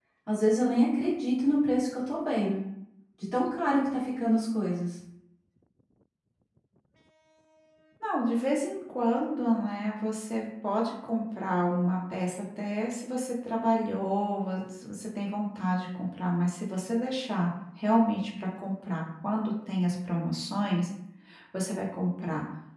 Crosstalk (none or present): none